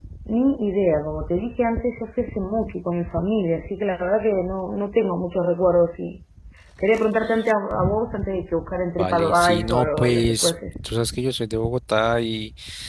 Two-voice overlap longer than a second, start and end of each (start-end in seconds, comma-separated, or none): 9.0-10.5